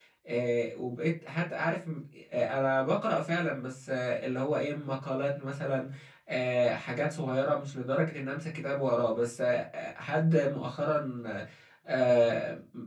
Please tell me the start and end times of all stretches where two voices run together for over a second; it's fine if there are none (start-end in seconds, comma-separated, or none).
none